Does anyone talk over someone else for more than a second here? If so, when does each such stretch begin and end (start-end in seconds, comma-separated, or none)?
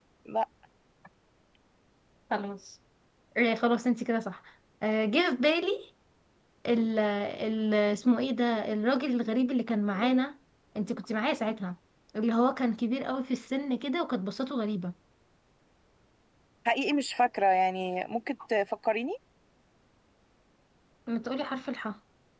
none